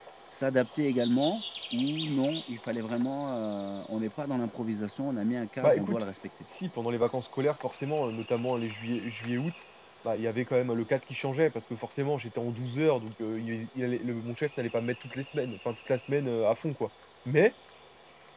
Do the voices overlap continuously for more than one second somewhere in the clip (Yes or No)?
No